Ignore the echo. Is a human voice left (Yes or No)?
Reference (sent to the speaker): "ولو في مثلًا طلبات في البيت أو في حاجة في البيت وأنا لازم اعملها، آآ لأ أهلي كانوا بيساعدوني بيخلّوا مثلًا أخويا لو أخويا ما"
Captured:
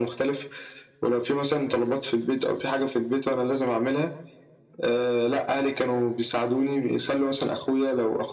No